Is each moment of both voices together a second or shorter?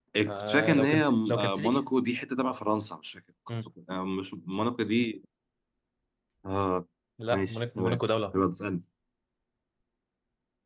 No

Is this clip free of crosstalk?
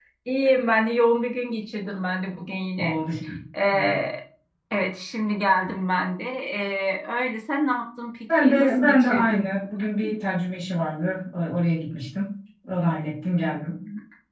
No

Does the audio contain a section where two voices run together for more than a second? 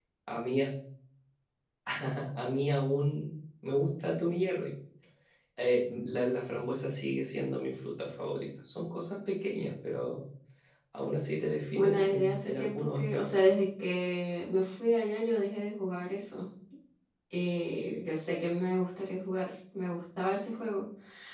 Yes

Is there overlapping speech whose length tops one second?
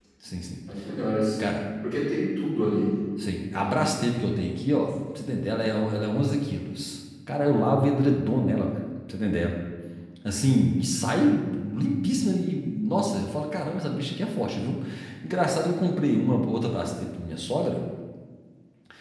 No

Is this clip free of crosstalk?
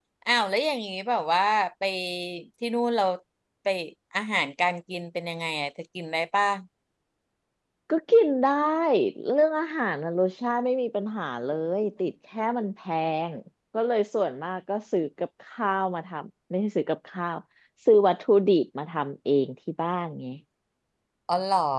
Yes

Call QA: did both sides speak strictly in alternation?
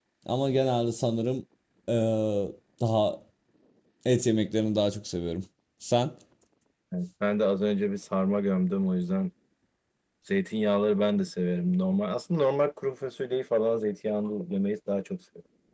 Yes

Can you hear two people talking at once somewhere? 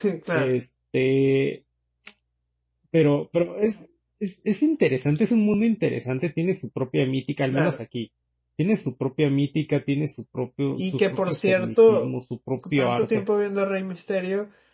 Yes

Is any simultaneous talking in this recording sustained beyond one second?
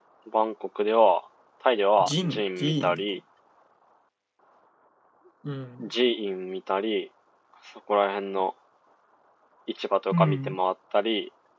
Yes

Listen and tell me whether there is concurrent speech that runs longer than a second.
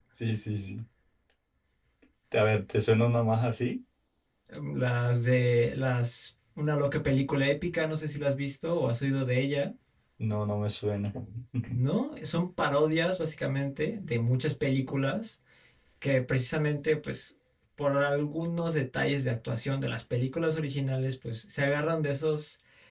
No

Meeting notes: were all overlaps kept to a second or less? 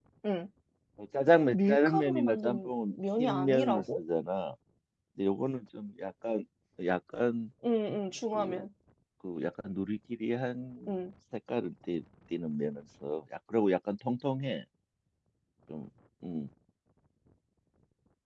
No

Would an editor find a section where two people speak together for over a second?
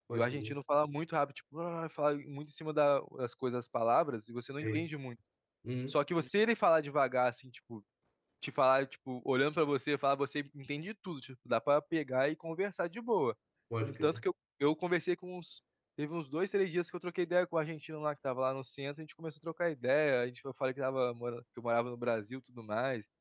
No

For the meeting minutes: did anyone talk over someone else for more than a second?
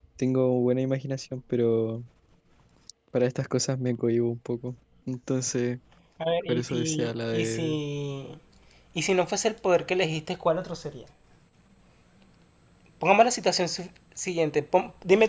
Yes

